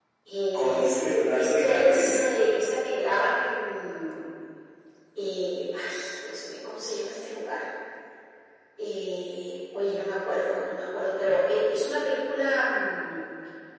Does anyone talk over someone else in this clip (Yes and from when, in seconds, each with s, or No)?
Yes, from 0.5 s